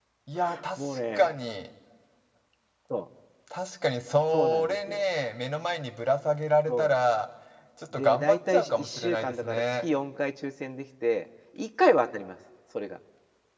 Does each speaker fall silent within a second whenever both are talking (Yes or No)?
No